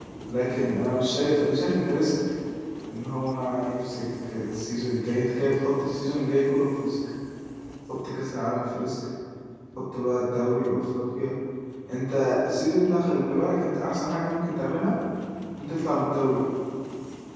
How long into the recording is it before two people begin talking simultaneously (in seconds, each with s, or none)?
none